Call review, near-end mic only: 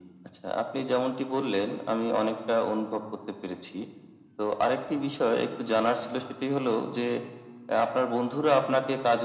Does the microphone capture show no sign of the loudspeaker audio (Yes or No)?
No